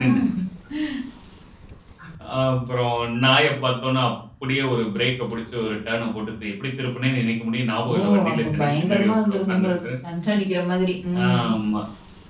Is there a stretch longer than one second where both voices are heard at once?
Yes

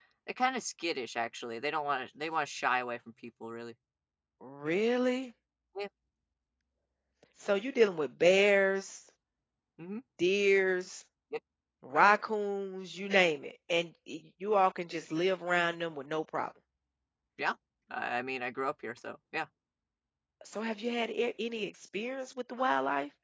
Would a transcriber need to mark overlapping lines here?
No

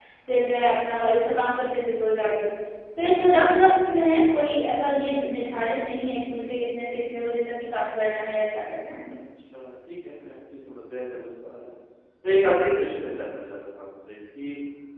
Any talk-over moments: No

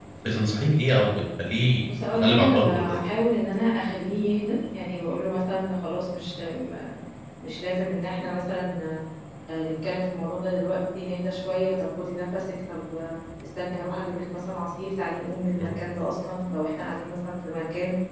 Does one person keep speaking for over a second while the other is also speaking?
Yes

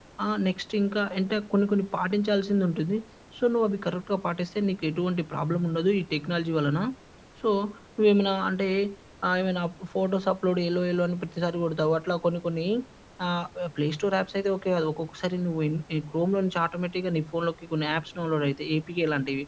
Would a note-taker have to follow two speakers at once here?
No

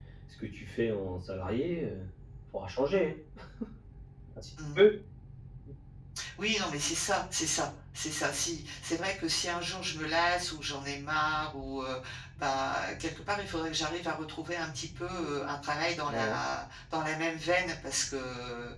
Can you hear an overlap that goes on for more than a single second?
No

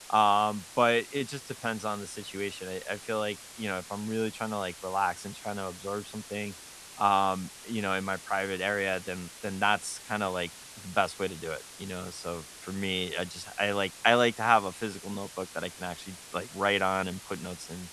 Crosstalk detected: No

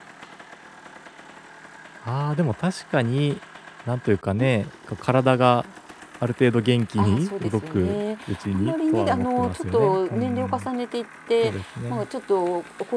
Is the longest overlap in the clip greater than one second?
Yes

